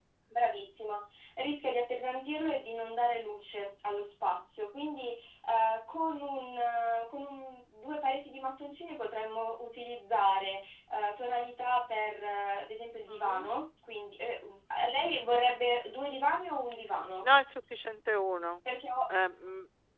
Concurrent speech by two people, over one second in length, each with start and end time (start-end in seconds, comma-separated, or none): none